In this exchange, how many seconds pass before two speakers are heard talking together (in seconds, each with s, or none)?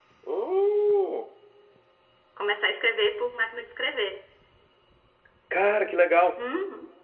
none